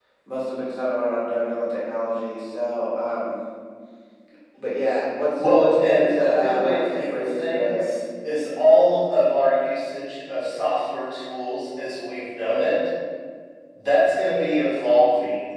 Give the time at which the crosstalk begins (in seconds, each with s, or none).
5.4 s